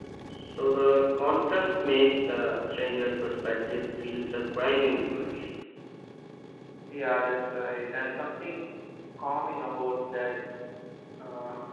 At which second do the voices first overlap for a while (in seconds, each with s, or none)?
none